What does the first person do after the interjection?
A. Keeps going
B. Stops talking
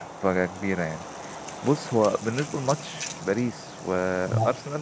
A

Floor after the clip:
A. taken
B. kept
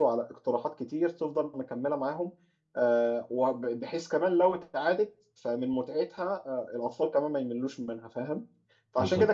B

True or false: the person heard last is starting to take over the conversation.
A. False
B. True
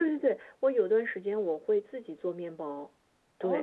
B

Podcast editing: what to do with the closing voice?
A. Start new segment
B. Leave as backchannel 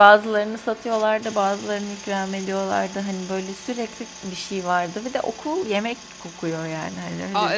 A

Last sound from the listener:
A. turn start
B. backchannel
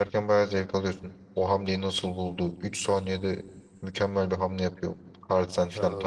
A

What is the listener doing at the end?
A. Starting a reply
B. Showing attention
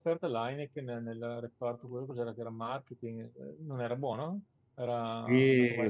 A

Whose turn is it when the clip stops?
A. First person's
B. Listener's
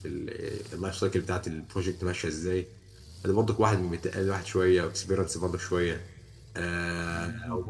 A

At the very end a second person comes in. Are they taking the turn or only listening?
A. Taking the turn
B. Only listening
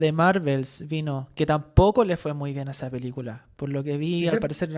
B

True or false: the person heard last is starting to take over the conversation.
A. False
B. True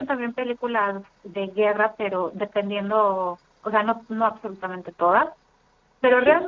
A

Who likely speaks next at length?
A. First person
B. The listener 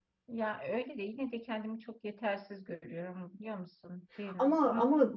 B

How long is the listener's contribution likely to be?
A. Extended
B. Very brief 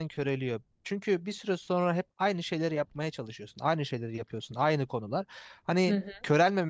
B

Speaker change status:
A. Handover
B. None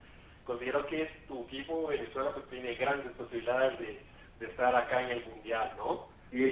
A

